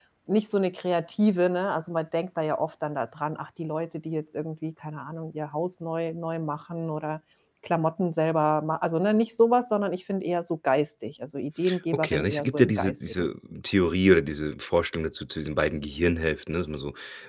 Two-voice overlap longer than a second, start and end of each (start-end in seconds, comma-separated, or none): 11.9-13.3